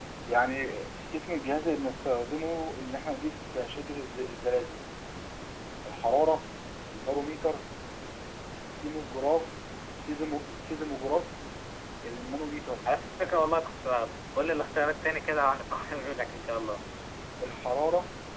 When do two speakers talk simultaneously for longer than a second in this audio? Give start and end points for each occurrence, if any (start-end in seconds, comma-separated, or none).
none